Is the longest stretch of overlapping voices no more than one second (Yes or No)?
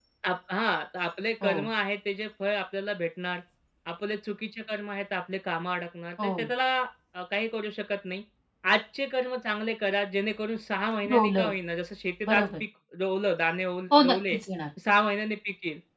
Yes